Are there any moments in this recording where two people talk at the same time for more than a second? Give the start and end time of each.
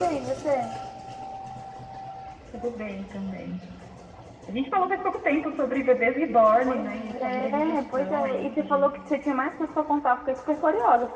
6.6-8.9

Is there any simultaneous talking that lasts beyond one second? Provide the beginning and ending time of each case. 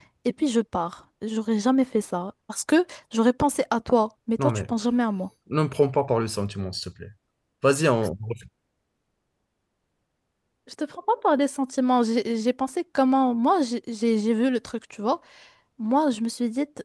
none

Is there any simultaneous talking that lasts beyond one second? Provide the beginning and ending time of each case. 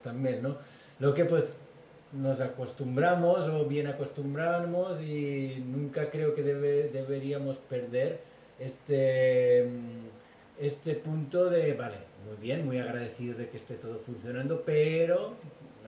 none

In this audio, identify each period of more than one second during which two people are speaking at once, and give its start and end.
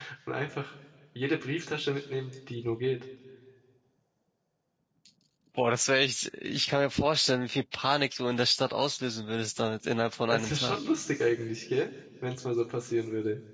none

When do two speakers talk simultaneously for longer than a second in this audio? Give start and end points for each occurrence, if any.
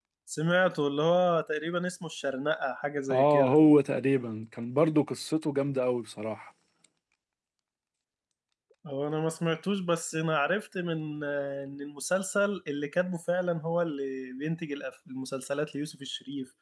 none

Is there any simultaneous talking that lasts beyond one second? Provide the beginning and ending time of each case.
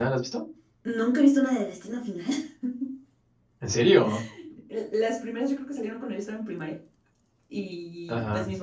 none

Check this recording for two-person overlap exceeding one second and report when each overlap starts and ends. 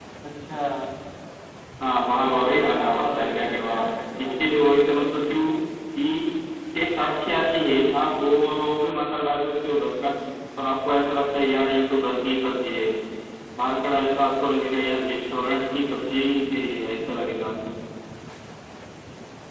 2.2-3.8

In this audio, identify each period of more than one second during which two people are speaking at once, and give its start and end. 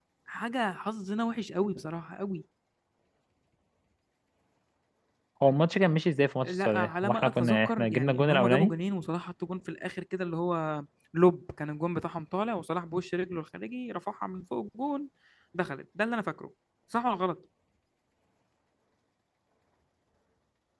6.4-8.7

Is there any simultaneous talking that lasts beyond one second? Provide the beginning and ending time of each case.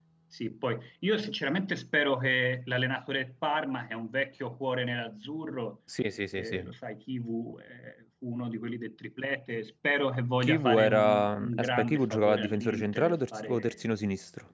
10.4-13.7

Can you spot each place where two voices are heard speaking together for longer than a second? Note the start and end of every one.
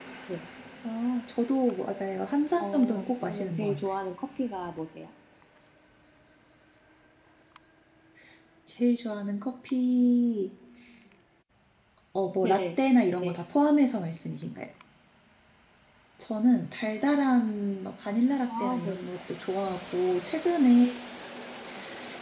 2.6-3.9

